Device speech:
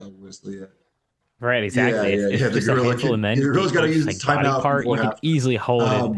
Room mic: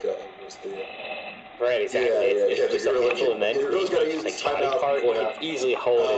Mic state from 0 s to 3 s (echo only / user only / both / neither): echo only